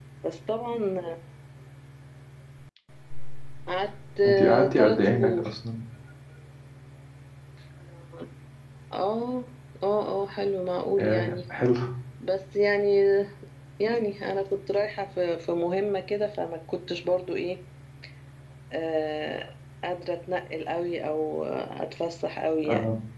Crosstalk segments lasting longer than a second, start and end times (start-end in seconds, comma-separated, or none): 4.3-5.5